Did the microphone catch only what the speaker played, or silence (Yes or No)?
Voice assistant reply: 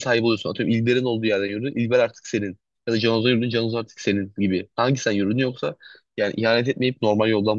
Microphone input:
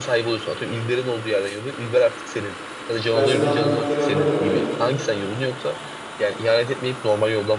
No